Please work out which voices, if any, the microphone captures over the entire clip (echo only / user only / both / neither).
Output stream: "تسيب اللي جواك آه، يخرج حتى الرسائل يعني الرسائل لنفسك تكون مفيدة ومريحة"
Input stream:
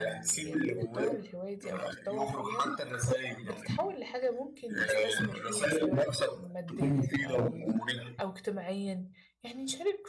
both